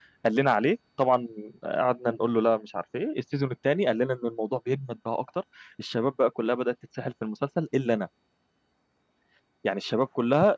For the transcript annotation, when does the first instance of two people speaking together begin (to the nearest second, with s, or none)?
none